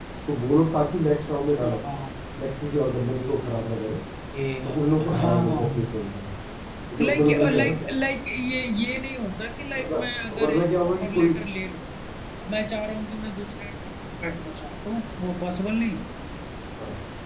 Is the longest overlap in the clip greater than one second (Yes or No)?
Yes